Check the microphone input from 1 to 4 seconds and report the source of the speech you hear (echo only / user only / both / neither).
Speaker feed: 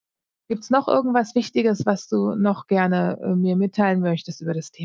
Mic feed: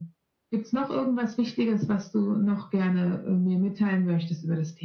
echo only